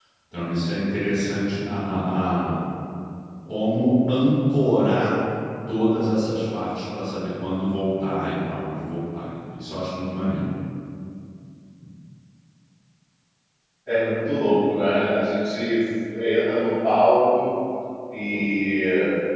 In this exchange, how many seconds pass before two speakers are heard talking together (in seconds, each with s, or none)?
none